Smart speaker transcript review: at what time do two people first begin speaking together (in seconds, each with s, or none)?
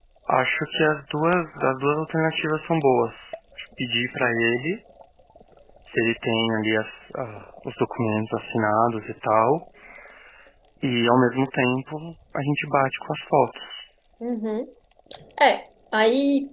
none